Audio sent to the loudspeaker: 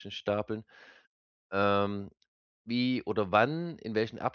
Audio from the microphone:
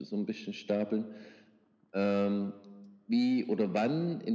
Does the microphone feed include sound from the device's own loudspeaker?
Yes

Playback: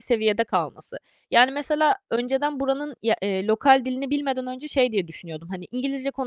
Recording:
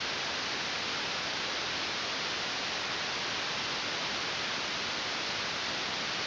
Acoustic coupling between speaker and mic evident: No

